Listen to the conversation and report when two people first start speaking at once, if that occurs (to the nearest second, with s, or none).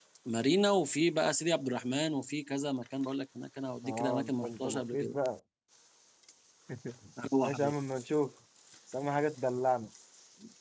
4 s